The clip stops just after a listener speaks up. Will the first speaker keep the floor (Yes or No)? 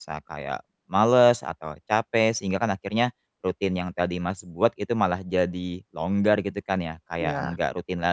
Yes